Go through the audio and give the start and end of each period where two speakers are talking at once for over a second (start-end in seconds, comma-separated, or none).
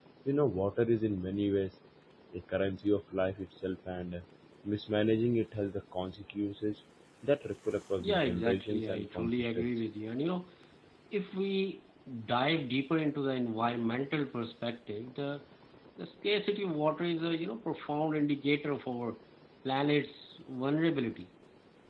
8.0-9.7